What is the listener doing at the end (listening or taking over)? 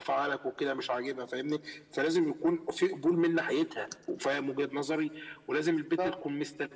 listening